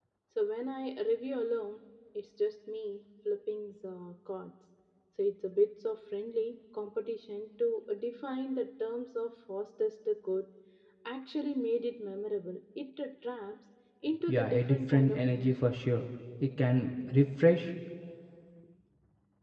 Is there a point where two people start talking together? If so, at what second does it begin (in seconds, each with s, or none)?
14.2 s